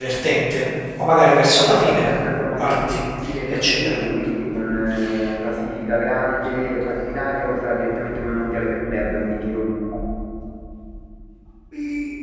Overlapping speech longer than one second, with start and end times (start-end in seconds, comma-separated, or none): none